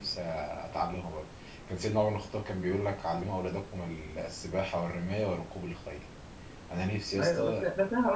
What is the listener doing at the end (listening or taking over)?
taking over